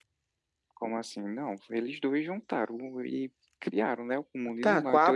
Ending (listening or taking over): taking over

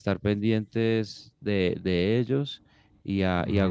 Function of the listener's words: listening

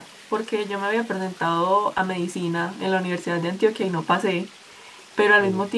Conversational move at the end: listening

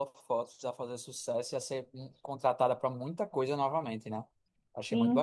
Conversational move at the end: taking over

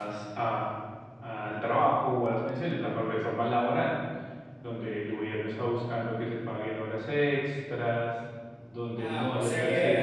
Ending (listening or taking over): taking over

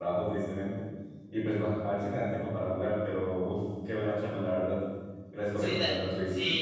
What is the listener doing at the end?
taking over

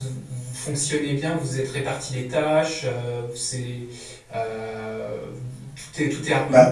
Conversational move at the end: listening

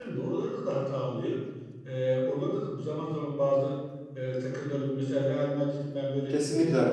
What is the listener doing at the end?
listening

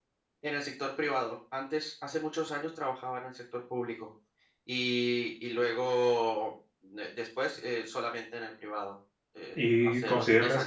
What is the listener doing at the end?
taking over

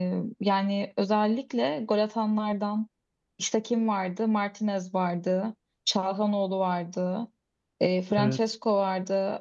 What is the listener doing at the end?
listening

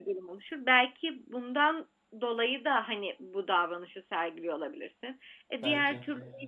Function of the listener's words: listening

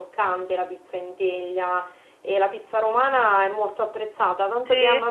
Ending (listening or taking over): listening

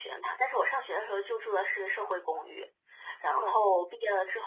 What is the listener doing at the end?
listening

